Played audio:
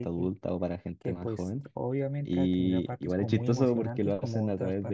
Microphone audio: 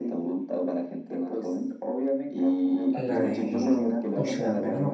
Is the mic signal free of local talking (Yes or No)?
No